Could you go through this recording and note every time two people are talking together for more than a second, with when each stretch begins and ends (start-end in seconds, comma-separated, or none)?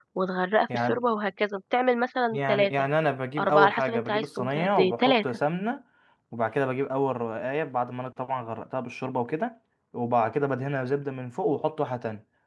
3.4-5.4